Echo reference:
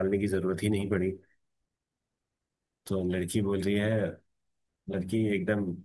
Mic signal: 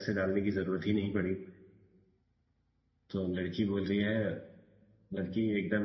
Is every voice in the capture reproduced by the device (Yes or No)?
Yes